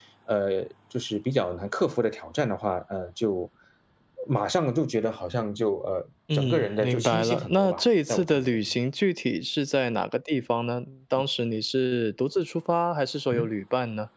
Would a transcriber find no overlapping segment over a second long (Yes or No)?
No